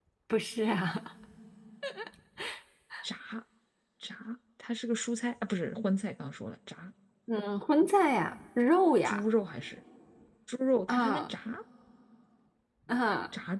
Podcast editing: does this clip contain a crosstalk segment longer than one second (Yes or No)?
No